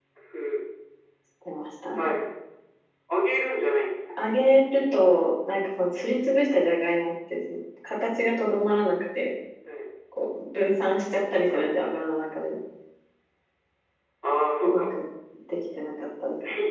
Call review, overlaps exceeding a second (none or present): none